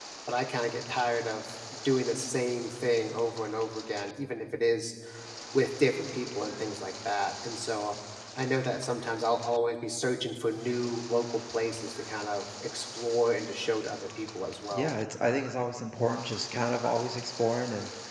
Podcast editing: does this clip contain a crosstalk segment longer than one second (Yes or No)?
No